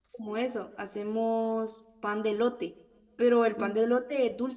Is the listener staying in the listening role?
Yes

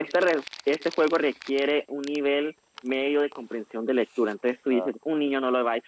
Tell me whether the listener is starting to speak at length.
No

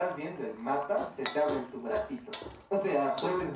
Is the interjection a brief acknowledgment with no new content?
Yes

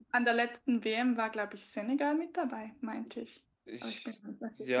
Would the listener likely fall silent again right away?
No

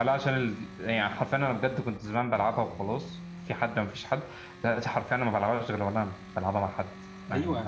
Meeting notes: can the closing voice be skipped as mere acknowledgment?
No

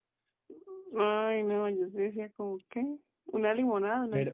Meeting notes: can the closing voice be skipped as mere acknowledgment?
No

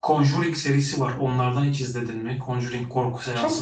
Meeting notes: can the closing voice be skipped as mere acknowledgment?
No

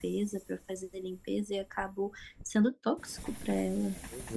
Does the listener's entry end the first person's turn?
No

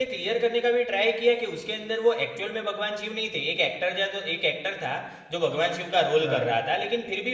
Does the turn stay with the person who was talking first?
Yes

